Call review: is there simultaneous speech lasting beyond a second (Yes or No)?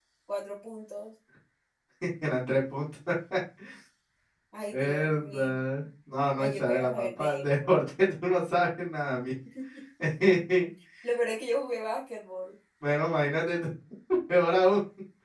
Yes